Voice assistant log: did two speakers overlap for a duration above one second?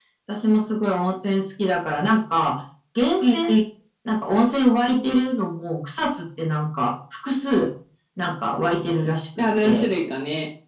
No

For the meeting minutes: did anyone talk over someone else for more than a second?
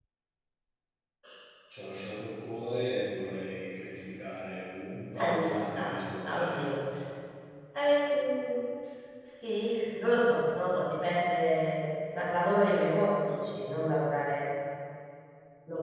Yes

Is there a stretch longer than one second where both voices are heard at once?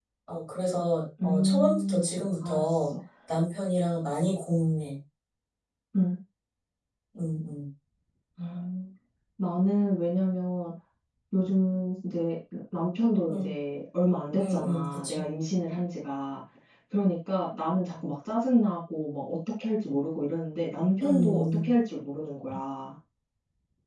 Yes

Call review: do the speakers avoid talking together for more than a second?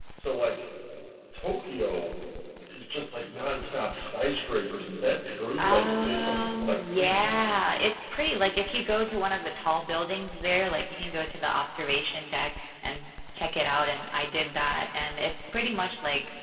No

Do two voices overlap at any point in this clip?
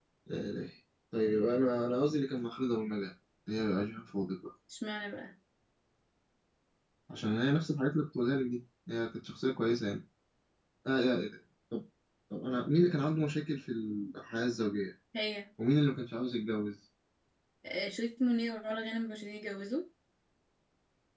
No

